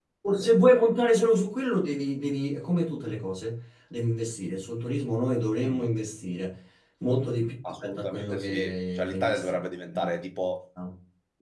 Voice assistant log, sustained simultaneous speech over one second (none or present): present